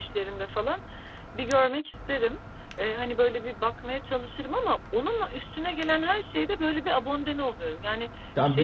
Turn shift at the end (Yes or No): Yes